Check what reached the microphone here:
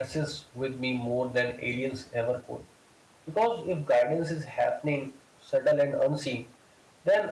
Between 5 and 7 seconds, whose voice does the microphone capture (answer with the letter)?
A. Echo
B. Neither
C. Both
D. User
D